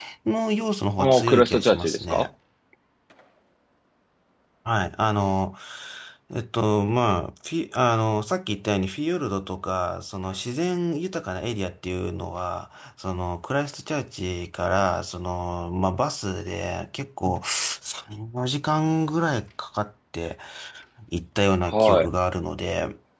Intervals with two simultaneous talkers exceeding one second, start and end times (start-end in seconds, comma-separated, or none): 1.0-2.3